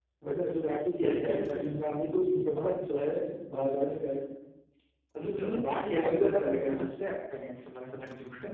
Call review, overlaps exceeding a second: present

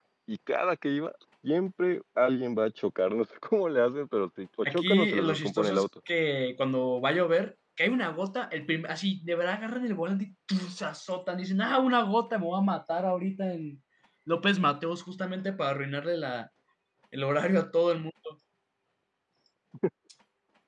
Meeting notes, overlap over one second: present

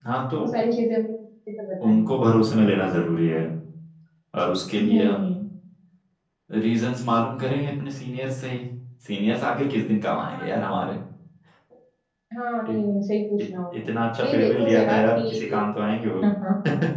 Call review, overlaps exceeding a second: present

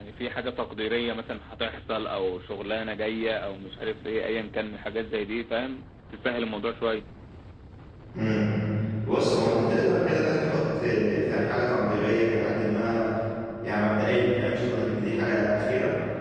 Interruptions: none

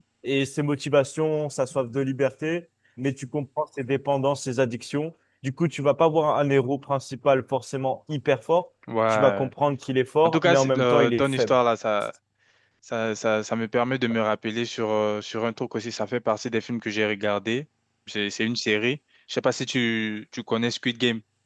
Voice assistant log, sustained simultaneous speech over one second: present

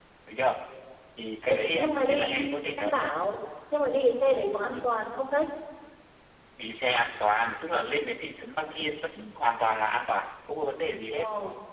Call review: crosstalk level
present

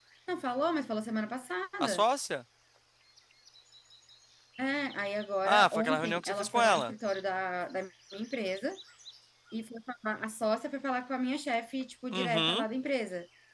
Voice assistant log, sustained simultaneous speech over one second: present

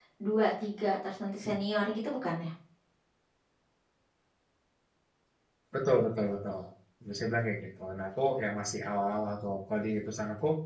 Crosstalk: none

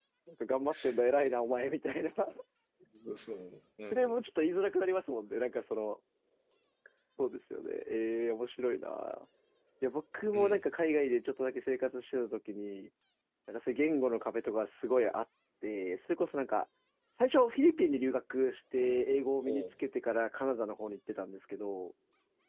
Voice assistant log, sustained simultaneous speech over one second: none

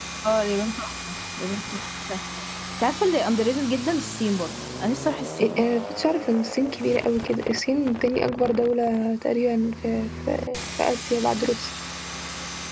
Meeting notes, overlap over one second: none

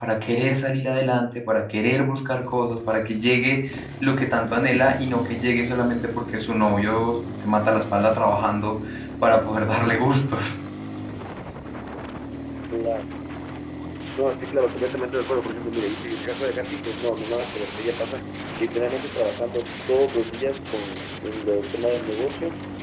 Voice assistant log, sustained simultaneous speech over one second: none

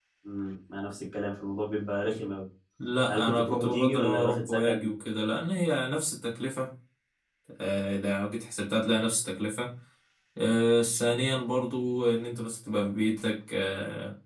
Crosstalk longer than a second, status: present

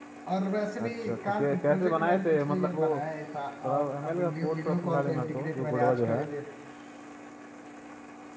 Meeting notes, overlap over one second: present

